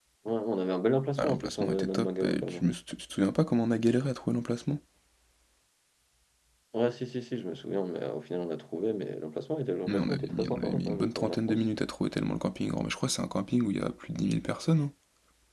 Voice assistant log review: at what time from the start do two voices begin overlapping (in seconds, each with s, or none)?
1.2 s